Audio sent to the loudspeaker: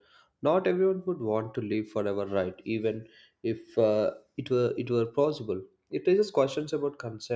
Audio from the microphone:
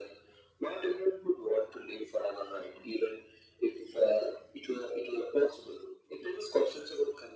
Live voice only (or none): none